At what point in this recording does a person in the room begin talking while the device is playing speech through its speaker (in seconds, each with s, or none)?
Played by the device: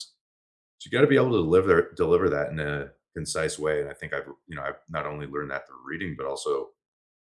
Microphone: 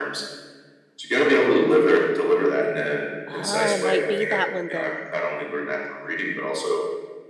3.2 s